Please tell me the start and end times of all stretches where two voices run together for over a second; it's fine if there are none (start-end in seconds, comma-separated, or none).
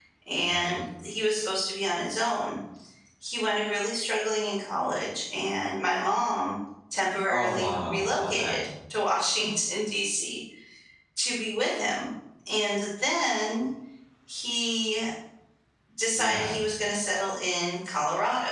7.3-8.6